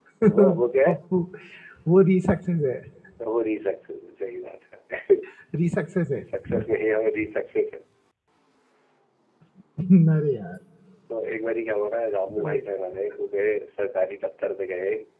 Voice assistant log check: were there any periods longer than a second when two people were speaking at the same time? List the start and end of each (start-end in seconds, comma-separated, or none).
none